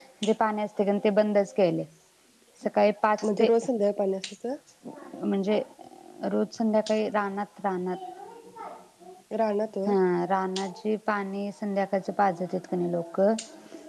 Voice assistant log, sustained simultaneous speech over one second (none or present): none